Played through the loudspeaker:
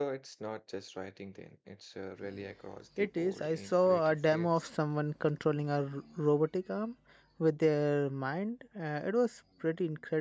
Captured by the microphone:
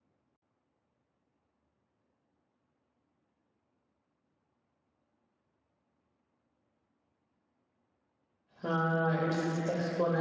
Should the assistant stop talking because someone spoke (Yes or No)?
Yes